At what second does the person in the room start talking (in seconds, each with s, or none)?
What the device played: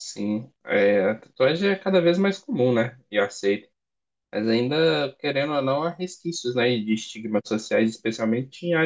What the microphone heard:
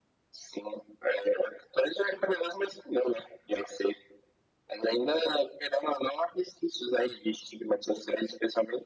none